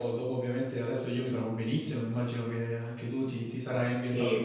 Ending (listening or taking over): taking over